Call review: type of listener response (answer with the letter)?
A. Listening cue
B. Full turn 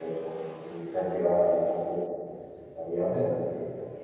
A